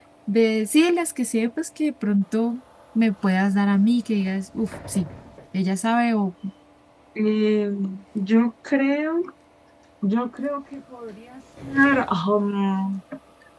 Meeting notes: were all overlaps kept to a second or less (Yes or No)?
Yes